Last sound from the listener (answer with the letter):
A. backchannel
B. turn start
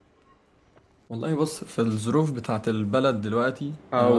A